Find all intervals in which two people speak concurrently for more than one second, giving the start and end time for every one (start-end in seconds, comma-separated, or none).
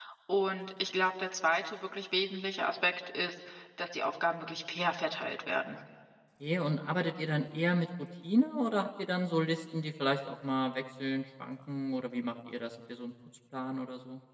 none